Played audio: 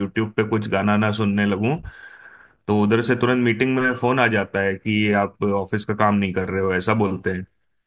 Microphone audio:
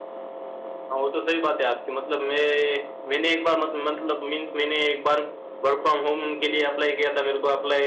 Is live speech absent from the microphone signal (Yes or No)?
No